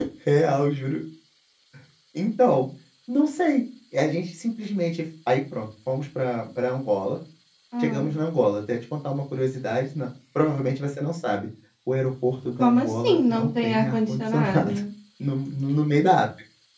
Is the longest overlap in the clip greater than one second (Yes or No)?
Yes